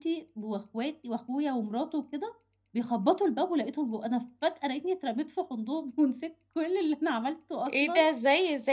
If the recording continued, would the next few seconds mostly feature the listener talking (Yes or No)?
Yes